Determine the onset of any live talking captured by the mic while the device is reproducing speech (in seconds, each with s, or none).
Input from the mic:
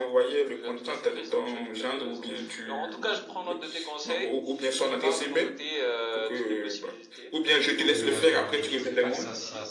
7.8 s